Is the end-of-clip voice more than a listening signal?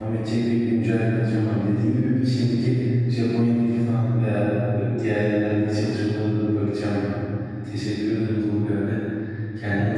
Yes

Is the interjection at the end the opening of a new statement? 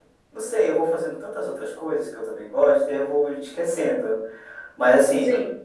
No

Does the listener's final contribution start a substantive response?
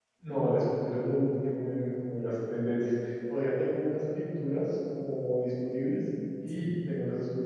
No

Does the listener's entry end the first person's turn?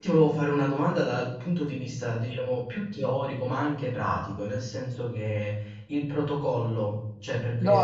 Yes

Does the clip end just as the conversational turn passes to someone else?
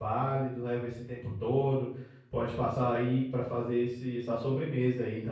Yes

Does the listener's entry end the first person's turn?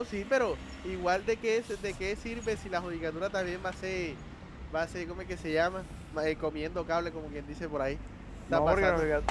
Yes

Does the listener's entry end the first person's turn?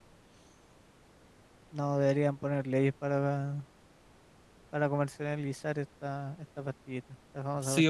Yes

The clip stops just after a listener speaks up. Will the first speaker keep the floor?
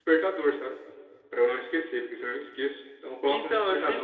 No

